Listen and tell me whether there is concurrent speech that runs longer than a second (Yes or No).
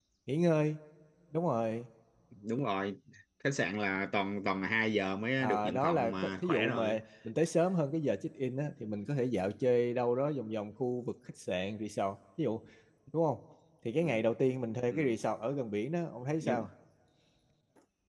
Yes